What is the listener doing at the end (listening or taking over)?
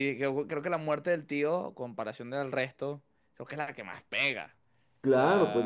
taking over